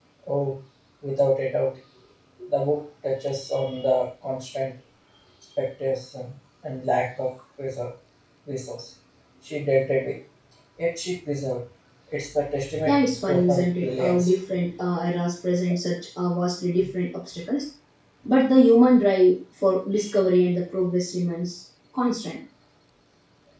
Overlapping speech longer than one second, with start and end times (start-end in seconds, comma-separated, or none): 12.8-14.3